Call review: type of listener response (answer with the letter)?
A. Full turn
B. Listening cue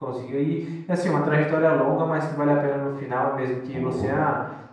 B